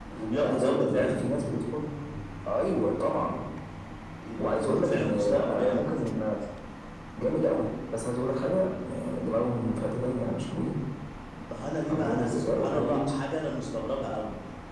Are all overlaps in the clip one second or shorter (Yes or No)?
No